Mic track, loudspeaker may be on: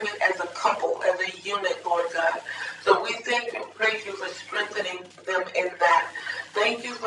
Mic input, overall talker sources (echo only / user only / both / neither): echo only